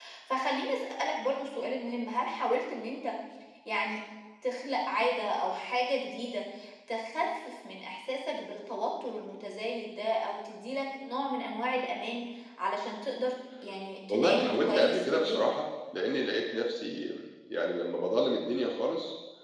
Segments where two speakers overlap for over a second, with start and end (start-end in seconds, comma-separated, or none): 14.1-15.4